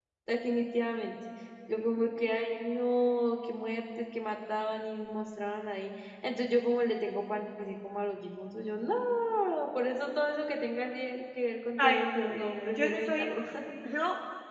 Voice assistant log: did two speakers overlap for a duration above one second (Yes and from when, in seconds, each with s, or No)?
Yes, from 11.8 s